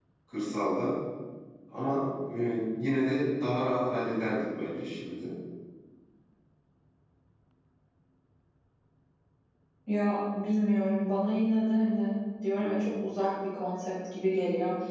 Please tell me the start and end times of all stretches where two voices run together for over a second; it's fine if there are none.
none

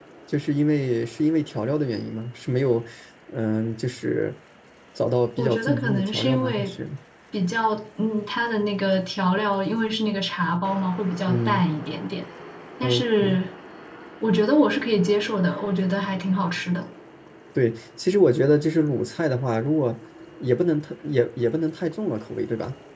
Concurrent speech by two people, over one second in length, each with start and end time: 5.4-6.7

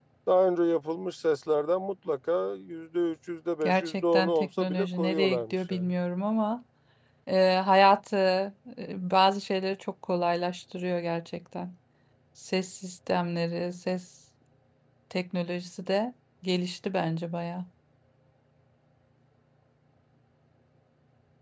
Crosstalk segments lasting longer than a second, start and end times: 3.6-5.9

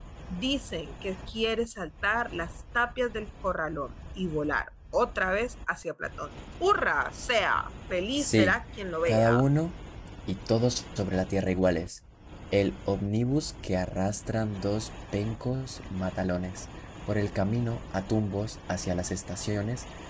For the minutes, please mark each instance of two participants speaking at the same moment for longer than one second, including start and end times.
none

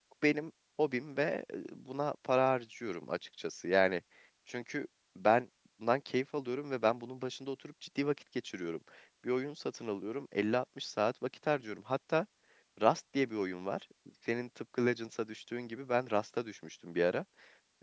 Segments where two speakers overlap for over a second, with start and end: none

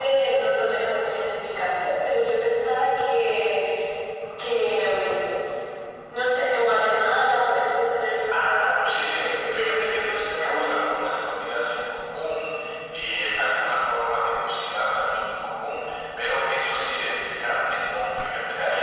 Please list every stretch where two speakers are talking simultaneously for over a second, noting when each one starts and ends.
8.3-10.8

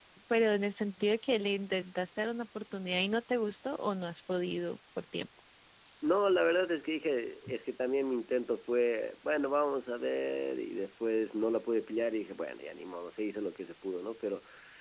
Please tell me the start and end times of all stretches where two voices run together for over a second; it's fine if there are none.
none

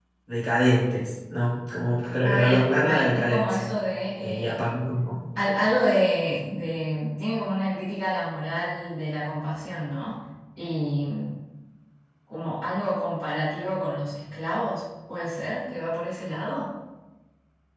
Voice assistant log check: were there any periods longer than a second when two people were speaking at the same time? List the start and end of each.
2.2-3.7

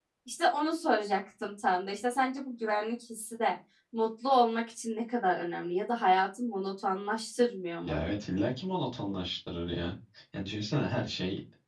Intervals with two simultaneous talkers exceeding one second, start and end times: none

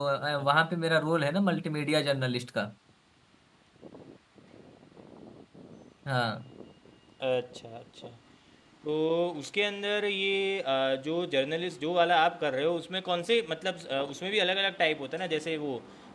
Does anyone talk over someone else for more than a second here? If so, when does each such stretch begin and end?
none

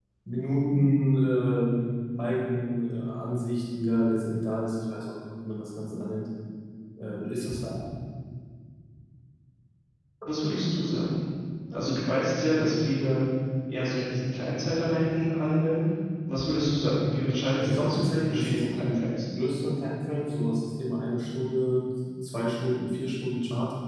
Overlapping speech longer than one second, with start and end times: 17.6-19.0

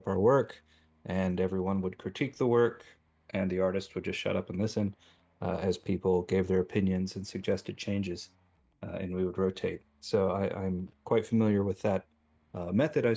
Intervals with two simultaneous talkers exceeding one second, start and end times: none

